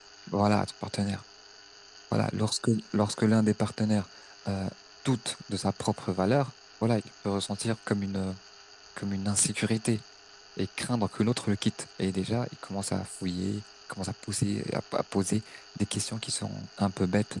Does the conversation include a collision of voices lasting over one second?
No

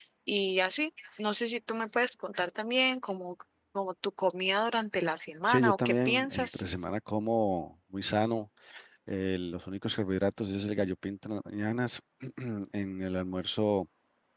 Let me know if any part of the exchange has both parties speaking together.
Yes, from 5.5 s

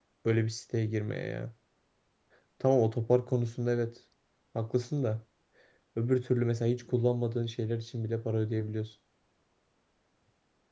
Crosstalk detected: No

